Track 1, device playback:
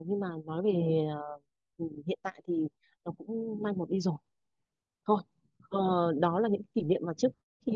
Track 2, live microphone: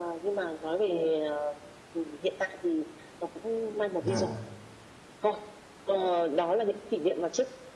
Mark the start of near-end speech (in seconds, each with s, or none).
4.0 s